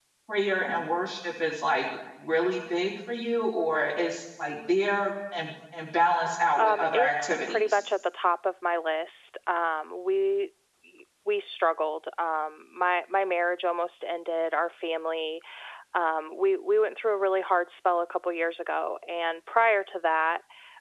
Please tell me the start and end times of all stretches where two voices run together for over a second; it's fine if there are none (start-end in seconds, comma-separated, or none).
6.6-7.8